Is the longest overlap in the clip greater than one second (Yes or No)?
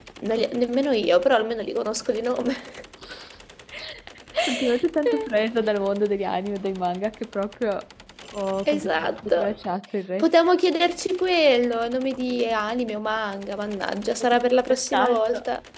Yes